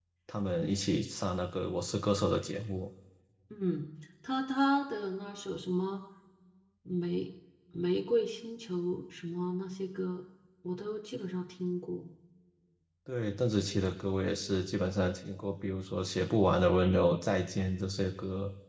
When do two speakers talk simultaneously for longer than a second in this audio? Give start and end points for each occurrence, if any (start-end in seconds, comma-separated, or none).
none